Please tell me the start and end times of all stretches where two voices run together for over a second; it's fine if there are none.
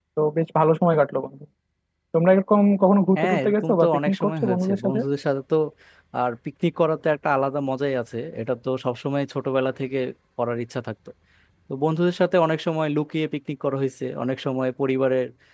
3.1-5.0

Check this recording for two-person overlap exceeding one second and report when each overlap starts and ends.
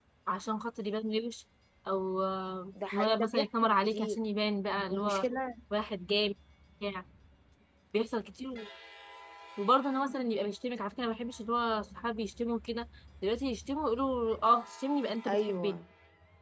2.9-4.2

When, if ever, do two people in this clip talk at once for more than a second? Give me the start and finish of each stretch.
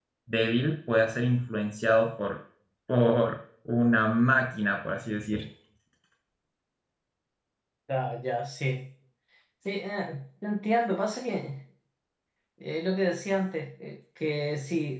none

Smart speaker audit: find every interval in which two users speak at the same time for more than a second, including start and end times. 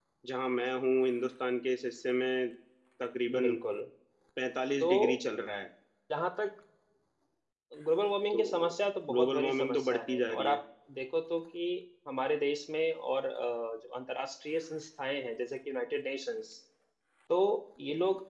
9.1-10.6

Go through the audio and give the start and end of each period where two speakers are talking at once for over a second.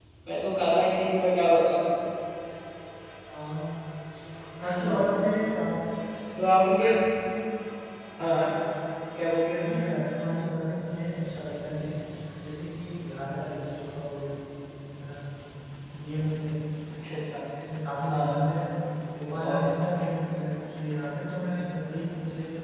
none

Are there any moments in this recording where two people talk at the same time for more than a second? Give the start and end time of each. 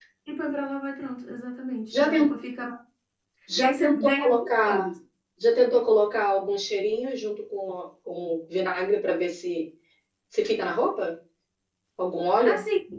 3.6-4.9

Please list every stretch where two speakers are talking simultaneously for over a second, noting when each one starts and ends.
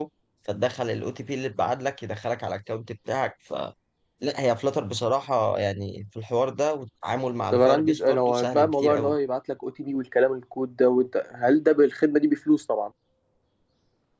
7.5-9.1

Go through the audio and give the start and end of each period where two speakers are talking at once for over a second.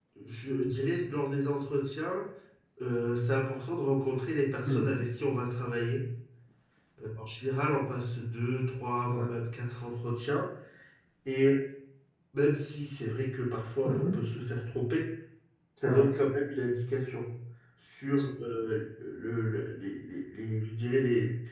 none

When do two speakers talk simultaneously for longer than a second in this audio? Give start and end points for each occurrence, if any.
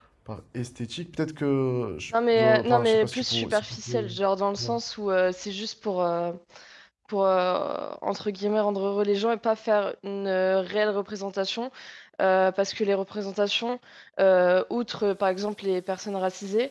2.3-4.1

